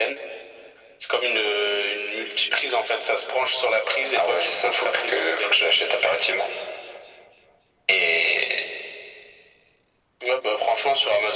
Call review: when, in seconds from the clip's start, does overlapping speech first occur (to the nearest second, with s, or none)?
4 s